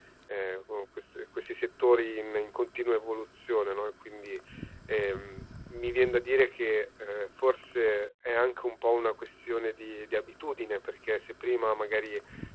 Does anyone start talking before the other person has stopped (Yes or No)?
No